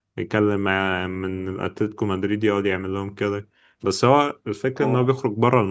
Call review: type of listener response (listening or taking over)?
listening